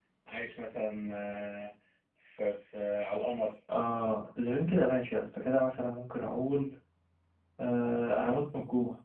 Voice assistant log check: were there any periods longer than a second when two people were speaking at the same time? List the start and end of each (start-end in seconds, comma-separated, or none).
none